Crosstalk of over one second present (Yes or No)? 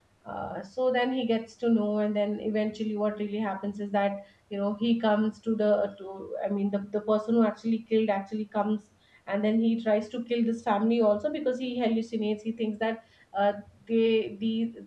No